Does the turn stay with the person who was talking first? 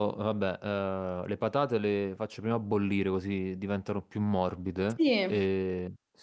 Yes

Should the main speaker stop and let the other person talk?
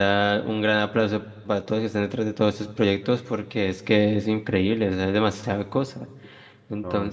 No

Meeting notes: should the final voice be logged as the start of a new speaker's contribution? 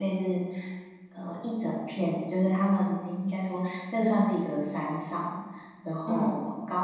No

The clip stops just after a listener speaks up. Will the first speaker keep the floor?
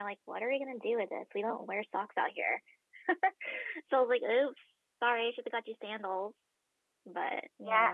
No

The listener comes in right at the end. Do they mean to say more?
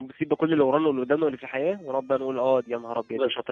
Yes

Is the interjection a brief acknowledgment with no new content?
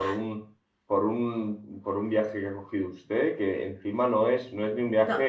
Yes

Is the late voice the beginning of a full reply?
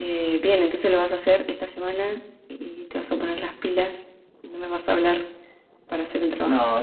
Yes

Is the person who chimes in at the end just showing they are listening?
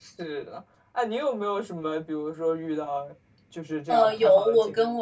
No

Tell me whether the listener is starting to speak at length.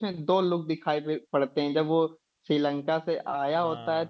No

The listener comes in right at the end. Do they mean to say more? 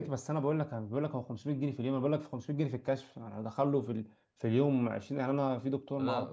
Yes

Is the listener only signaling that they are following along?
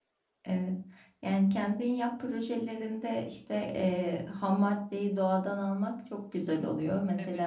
Yes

